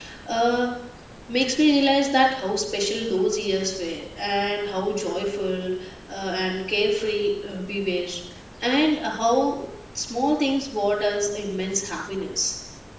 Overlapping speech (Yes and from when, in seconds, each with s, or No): No